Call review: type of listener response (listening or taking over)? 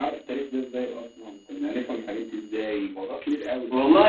taking over